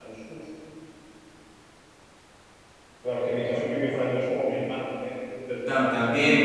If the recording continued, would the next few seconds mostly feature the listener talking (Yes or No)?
Yes